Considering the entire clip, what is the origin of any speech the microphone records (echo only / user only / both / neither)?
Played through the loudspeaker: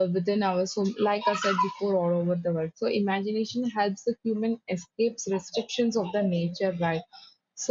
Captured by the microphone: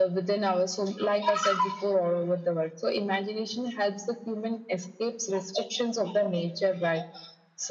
echo only